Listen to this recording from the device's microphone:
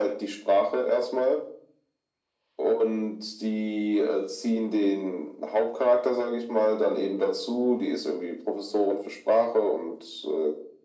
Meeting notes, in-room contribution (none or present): none